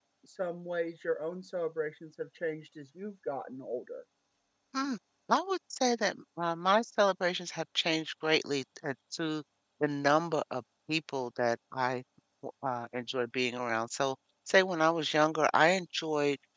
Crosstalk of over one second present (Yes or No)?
No